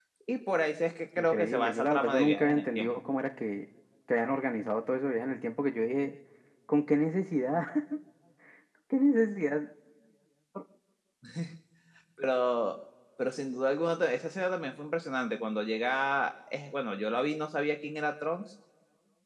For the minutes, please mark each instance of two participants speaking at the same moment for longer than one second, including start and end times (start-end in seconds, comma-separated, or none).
1.2-2.9